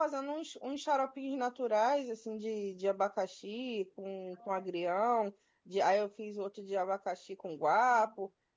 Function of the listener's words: listening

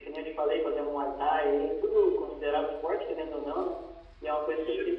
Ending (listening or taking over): listening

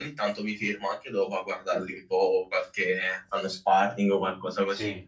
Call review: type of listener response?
listening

